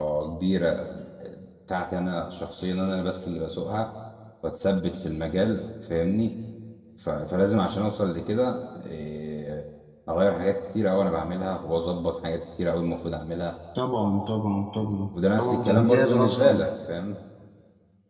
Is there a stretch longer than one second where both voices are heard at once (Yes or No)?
Yes